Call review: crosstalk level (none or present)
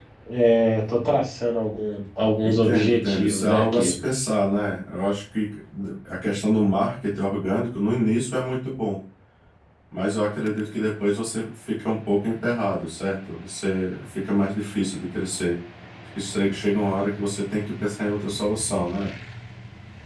present